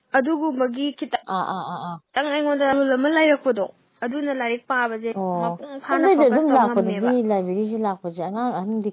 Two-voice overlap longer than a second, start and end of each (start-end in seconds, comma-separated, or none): 5.9-7.1